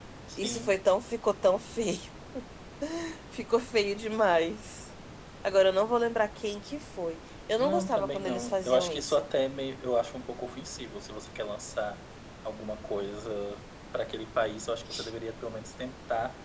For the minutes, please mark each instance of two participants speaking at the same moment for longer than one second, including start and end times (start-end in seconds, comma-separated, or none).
7.6-9.2